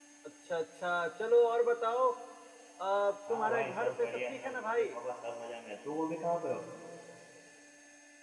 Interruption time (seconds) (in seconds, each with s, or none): 3.3 s